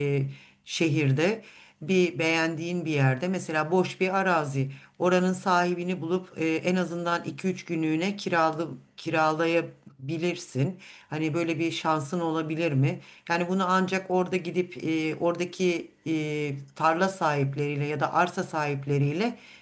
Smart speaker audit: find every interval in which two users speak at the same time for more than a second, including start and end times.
none

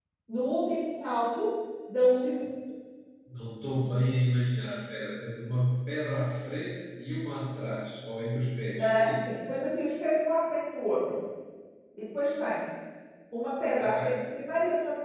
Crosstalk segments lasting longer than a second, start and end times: none

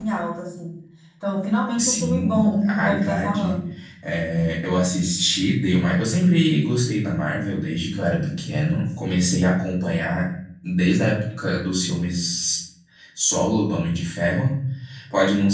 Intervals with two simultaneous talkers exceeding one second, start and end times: 1.8-3.6

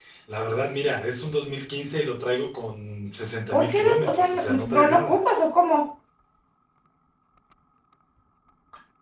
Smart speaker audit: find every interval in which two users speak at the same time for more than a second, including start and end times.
3.5-5.2

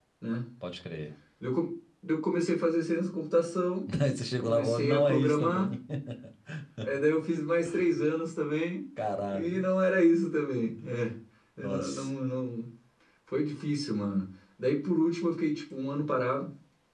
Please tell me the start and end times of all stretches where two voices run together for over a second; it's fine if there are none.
4.4-5.7

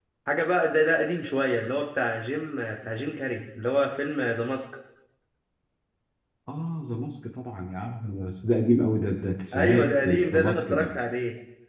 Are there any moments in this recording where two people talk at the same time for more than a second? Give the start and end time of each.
9.5-10.9

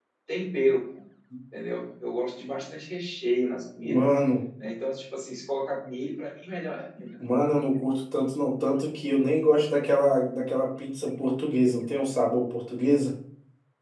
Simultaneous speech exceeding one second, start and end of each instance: none

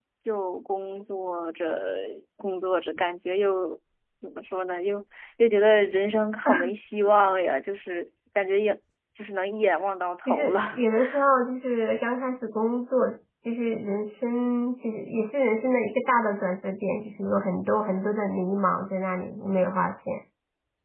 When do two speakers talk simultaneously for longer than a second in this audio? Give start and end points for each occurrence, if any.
none

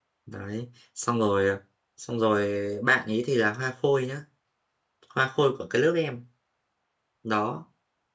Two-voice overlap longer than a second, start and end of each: none

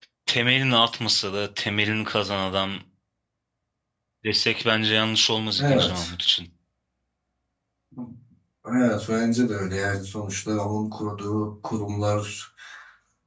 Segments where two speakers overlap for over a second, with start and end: none

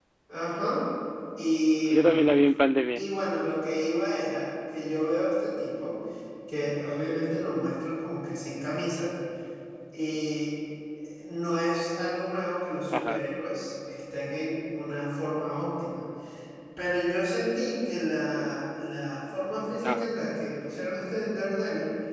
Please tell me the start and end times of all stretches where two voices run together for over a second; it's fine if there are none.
none

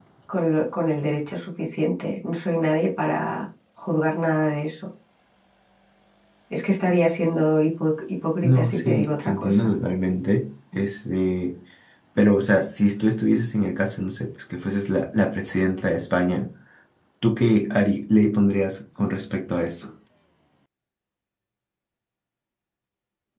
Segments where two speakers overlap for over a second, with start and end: 8.4-9.7

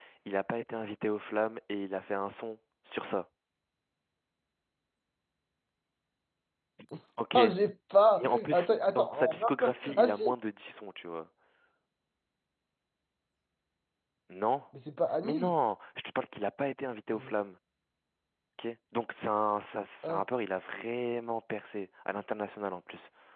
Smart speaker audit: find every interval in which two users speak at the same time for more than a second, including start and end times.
8.3-10.2

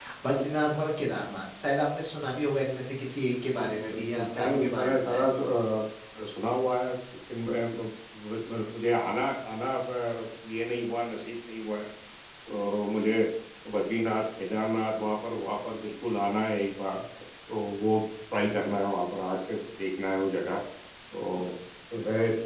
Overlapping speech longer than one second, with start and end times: 3.5-5.2

